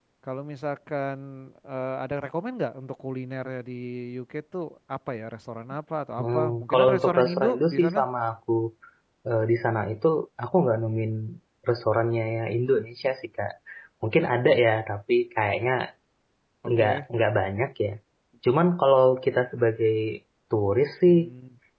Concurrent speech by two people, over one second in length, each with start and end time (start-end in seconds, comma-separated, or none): 6.2-8.0